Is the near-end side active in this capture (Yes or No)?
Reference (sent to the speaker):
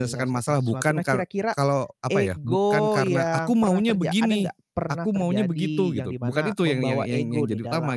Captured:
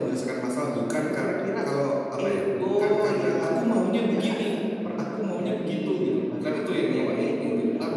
No